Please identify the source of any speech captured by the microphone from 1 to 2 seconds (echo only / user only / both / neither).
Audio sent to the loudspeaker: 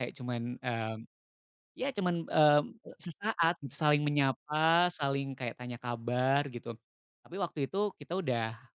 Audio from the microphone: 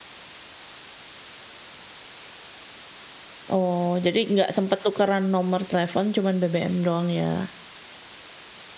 neither